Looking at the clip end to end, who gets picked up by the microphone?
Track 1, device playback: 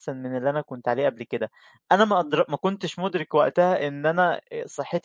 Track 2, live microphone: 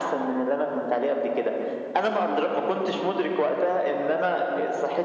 echo only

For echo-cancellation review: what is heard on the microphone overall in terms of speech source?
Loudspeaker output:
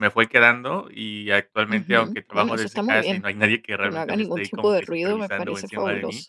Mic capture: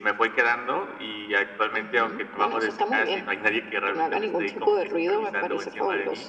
echo only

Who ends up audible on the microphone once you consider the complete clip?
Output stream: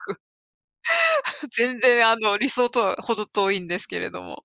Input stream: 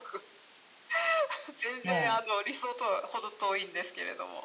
both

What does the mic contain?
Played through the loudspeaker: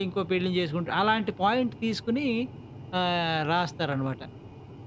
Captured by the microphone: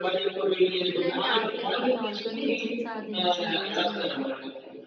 both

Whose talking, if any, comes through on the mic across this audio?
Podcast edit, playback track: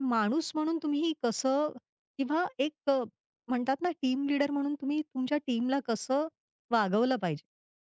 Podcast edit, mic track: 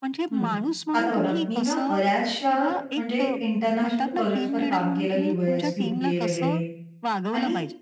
both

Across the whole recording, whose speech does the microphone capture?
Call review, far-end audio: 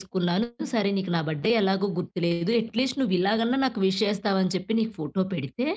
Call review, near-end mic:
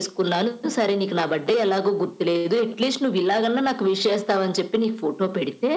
echo only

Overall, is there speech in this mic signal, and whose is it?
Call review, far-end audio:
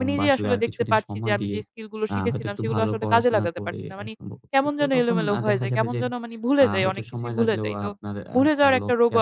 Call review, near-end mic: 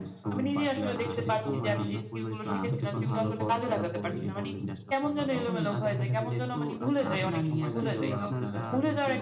both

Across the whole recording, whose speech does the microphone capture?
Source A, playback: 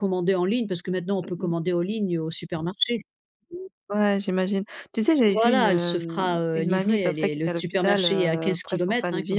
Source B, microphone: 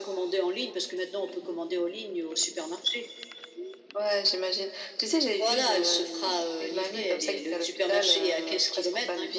echo only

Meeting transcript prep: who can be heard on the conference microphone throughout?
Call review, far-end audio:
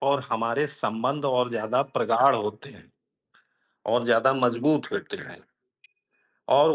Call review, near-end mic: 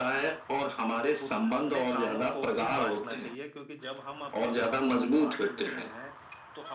both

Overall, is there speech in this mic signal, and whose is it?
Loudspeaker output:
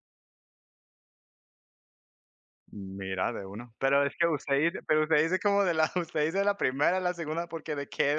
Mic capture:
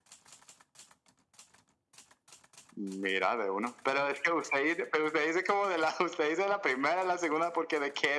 echo only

